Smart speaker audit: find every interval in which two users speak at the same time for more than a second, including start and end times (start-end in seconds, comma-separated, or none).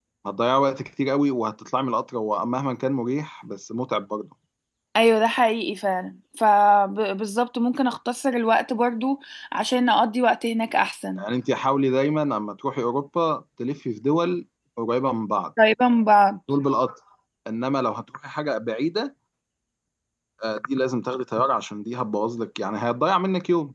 none